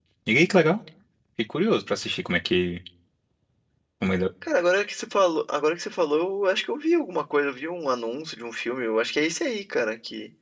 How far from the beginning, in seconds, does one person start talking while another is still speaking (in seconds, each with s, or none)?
none